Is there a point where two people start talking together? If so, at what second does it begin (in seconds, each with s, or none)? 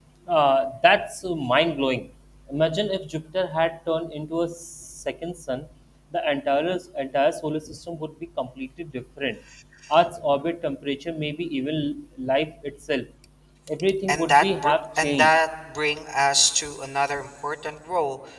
14.1 s